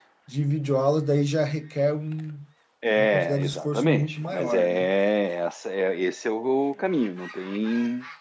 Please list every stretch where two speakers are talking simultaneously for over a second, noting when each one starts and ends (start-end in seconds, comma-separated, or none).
3.0-4.9